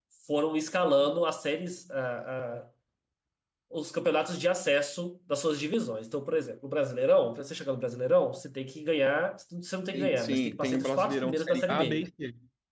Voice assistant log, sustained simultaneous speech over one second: present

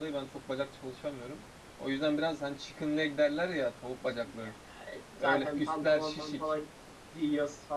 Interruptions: present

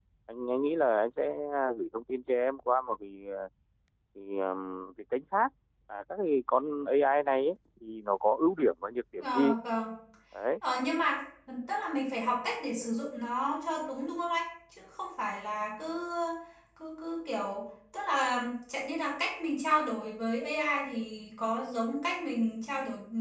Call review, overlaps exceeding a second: none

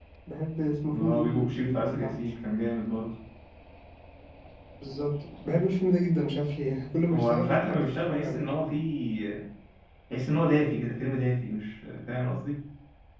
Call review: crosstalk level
present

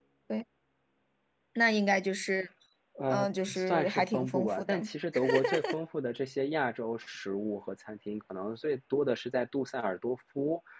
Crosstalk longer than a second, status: present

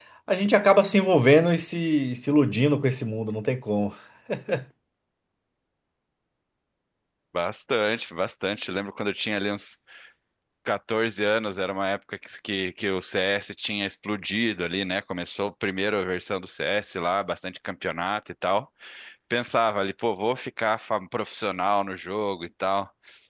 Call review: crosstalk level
none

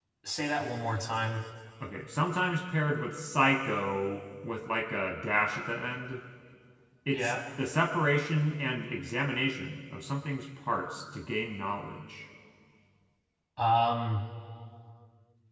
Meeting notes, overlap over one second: none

